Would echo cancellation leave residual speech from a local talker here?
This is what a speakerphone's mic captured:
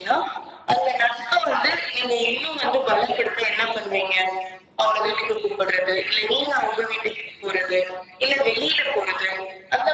No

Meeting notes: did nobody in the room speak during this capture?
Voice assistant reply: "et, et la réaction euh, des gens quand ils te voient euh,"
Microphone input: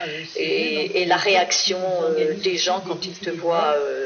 No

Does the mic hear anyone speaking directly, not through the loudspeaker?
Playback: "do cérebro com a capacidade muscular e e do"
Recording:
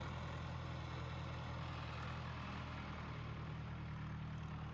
No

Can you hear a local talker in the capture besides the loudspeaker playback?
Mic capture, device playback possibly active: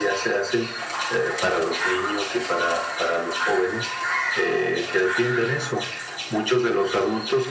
No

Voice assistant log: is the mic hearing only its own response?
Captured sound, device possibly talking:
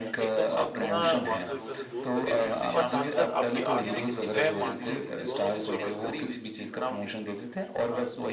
No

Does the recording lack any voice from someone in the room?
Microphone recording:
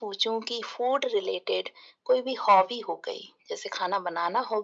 Yes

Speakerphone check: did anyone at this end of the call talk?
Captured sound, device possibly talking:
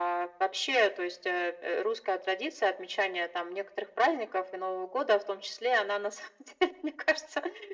No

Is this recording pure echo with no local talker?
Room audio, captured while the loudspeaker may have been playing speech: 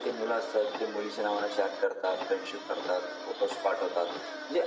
Yes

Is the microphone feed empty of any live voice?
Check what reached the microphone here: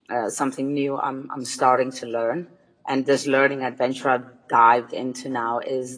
No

